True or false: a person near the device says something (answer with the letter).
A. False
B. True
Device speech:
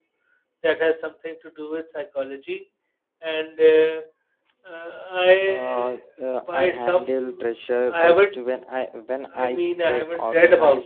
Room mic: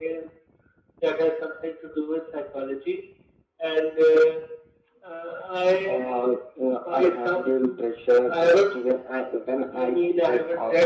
A